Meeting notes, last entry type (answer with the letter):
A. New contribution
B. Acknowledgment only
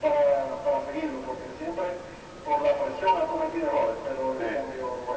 B